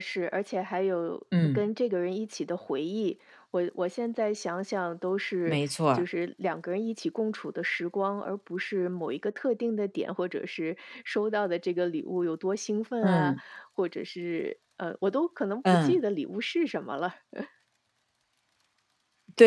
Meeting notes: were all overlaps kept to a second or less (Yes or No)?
Yes